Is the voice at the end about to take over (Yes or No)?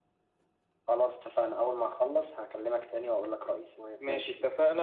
Yes